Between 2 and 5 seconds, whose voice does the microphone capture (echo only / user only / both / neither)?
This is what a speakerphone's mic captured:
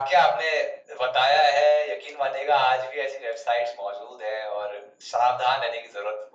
echo only